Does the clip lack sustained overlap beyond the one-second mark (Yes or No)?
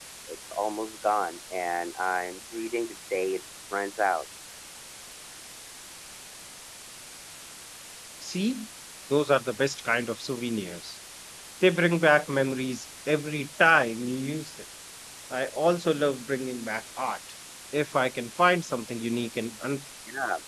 Yes